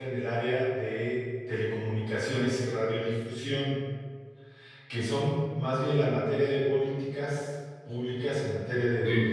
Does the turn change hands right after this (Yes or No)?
No